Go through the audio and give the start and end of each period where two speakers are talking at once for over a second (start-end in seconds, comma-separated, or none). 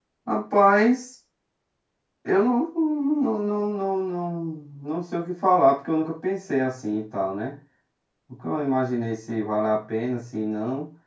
none